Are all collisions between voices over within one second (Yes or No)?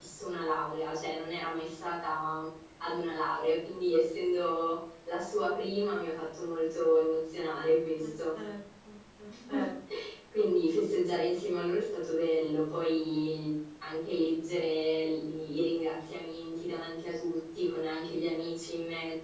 Yes